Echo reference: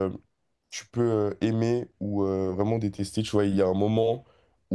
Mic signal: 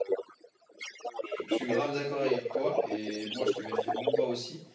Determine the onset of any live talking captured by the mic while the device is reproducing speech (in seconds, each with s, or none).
1.2 s